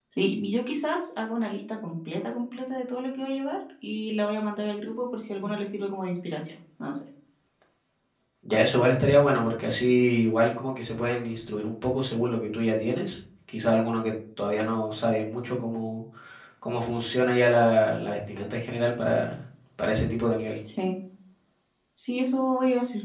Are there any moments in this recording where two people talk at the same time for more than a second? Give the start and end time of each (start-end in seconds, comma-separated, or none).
none